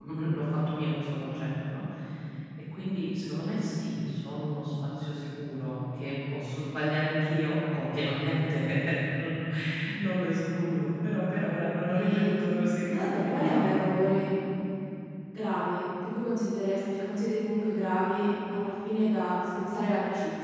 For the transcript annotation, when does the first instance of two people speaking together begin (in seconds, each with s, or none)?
11.9 s